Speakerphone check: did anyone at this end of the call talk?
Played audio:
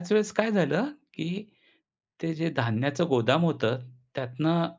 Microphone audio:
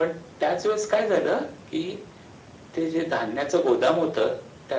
No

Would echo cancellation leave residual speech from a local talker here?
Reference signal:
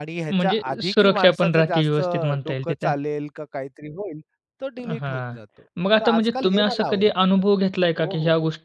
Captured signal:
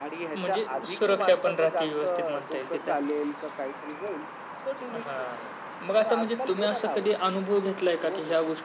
No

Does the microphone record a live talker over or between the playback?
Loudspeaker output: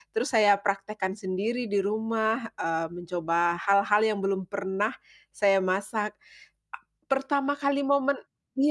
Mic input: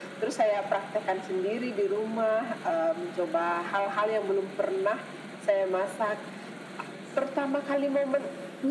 No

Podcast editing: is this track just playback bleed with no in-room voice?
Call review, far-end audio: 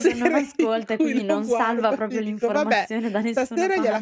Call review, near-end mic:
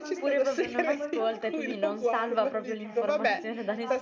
No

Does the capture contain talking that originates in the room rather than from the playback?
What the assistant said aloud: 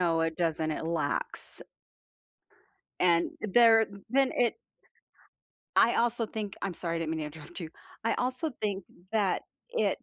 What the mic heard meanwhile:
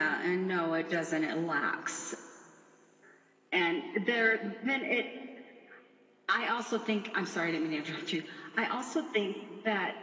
No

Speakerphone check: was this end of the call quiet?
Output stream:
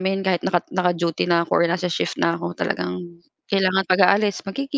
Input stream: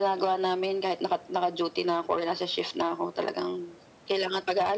Yes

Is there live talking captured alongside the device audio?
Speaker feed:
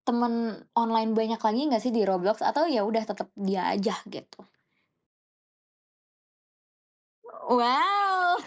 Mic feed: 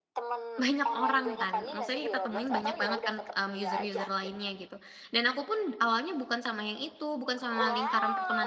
Yes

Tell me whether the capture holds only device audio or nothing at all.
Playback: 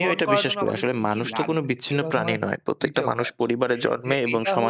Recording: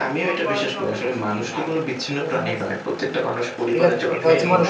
No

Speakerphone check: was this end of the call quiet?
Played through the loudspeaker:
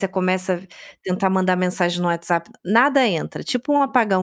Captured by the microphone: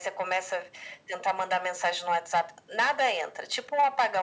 Yes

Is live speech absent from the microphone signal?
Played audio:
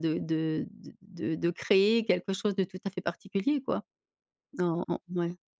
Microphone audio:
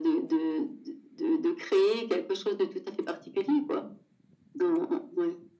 Yes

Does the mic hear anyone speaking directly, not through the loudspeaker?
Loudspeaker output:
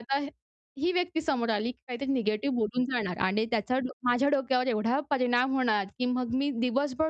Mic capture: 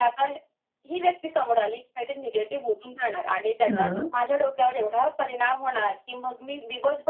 Yes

